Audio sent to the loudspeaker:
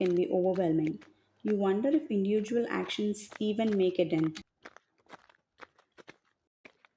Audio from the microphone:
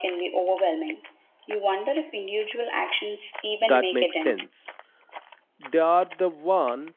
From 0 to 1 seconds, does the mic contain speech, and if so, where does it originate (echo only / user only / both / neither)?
echo only